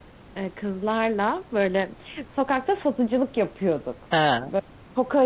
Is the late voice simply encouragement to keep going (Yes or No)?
Yes